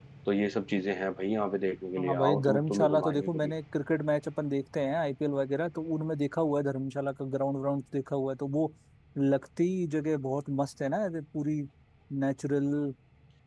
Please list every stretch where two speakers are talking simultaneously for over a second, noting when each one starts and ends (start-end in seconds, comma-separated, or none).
2.0-3.5